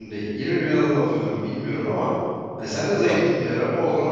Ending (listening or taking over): listening